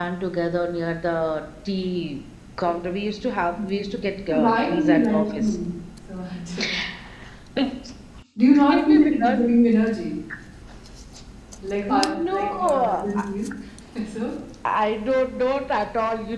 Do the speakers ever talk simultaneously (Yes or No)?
Yes